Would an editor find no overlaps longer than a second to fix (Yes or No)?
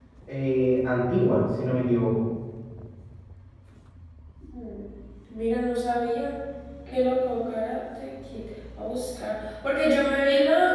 Yes